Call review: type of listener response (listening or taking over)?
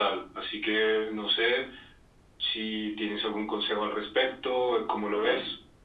taking over